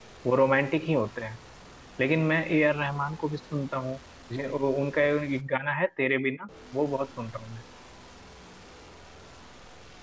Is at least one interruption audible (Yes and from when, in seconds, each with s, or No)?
No